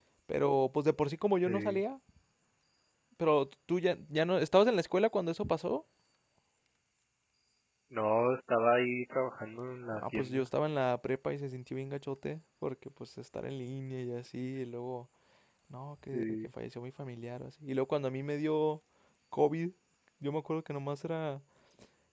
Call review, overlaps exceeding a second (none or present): none